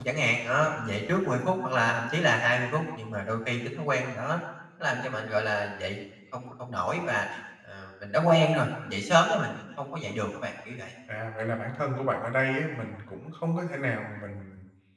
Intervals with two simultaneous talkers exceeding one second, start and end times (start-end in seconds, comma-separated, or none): none